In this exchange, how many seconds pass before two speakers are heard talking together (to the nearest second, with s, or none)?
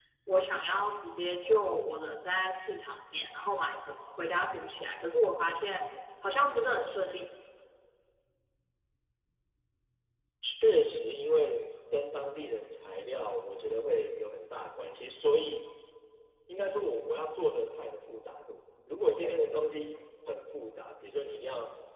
none